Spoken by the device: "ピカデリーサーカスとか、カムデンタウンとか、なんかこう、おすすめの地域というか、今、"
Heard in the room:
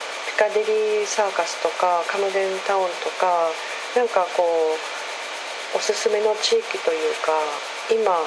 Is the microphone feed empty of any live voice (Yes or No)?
Yes